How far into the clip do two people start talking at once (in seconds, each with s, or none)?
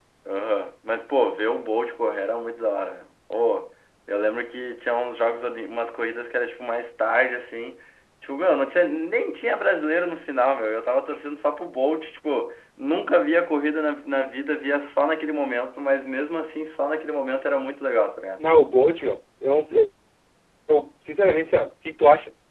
none